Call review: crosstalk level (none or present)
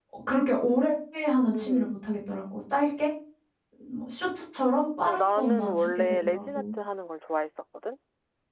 present